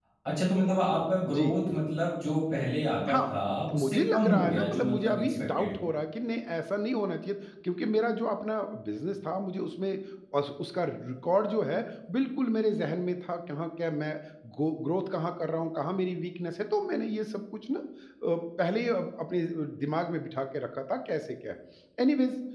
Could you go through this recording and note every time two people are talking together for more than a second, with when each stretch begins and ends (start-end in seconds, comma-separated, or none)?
3.7-5.7